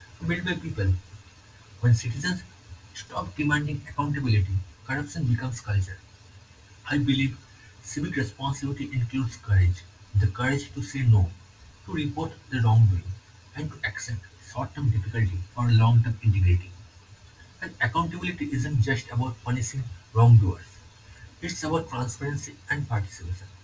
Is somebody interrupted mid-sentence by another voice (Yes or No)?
No